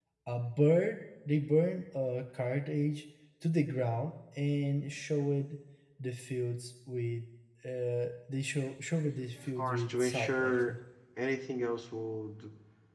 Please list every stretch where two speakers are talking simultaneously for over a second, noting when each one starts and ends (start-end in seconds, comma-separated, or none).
9.4-10.8